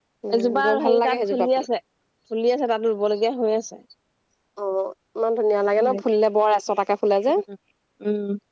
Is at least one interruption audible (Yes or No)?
Yes